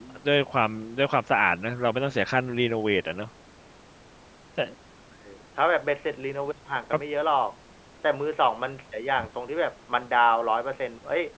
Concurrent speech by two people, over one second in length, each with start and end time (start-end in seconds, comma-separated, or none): none